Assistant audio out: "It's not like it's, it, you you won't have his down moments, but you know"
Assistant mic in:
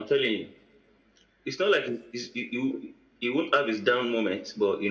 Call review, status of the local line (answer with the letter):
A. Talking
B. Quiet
B